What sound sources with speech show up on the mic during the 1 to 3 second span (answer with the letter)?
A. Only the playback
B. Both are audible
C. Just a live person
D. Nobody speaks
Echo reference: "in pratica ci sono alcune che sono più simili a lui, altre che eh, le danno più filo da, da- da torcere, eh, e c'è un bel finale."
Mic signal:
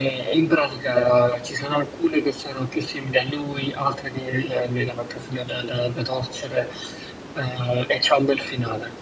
A